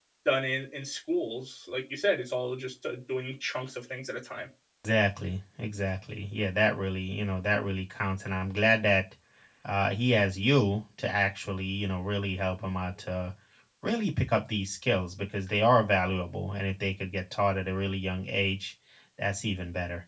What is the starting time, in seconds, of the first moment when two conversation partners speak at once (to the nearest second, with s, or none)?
none